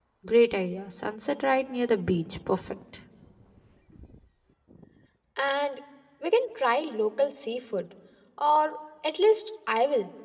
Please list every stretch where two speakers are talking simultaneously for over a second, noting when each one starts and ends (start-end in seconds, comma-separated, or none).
none